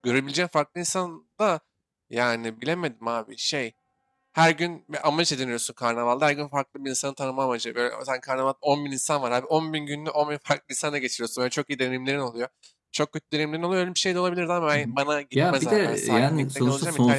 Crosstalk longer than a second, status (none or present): present